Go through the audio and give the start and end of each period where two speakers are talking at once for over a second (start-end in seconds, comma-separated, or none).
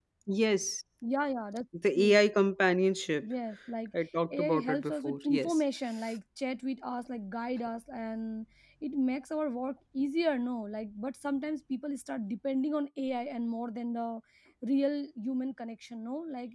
4.4-5.6